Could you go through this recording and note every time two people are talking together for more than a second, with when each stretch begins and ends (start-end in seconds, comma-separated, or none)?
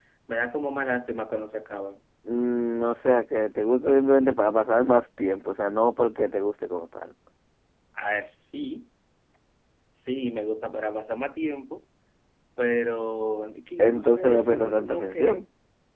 13.8-15.5